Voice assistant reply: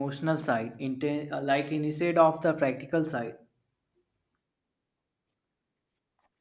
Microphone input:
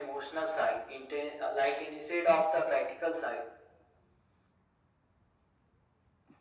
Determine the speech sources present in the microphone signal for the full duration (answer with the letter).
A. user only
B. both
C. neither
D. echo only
D